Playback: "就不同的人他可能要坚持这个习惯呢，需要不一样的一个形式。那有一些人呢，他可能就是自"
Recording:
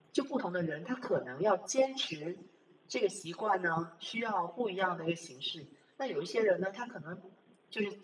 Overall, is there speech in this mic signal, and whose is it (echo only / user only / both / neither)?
echo only